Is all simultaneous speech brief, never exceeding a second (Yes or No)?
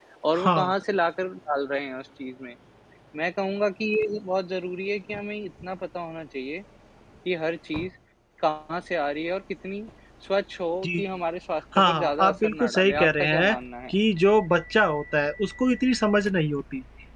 No